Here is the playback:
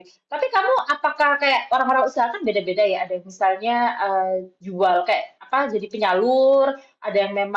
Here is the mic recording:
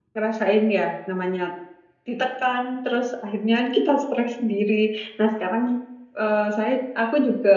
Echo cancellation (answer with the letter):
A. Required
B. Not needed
B